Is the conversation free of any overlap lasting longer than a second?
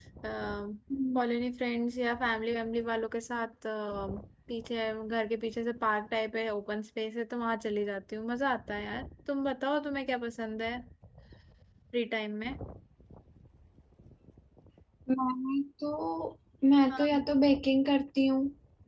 Yes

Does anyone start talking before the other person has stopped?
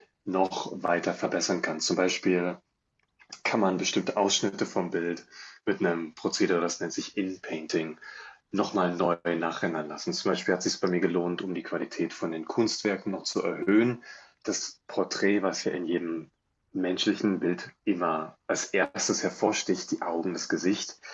No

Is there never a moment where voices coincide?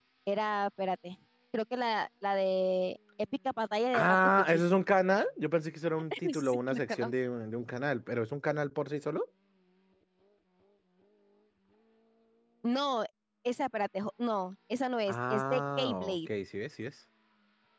No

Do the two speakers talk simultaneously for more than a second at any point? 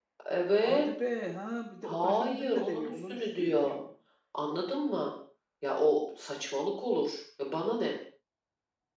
Yes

